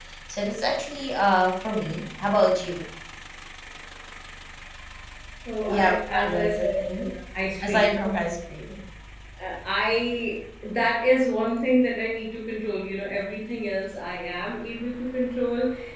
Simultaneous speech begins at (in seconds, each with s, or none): 5.7 s